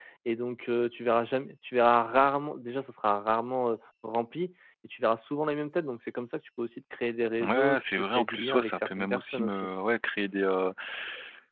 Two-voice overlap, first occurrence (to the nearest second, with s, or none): 7 s